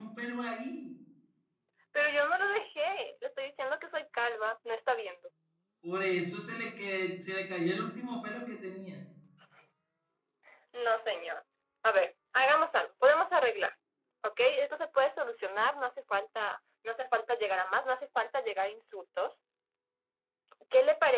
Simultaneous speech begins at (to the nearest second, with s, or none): none